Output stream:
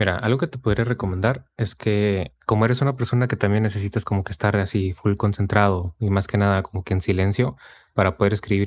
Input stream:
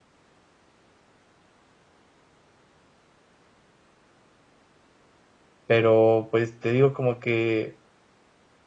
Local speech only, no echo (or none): pero, pues, te digo como que